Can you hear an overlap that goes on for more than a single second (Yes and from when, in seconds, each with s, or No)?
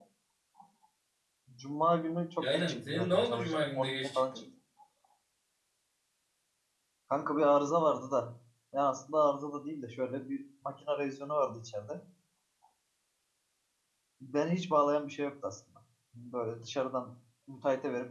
Yes, from 2.5 s